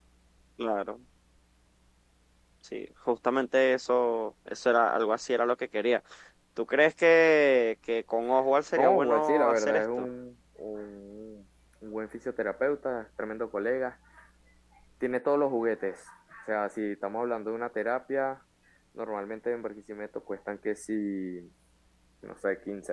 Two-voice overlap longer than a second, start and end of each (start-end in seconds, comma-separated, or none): 8.7-10.1